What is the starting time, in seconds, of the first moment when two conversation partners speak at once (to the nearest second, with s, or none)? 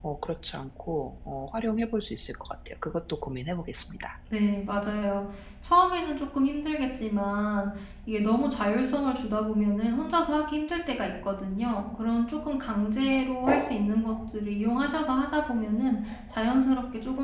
none